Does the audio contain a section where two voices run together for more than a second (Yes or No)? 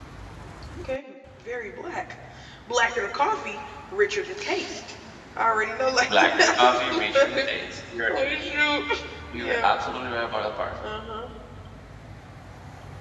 Yes